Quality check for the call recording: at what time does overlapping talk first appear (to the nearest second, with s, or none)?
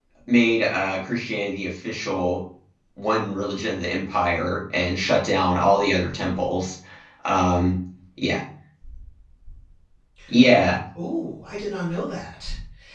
none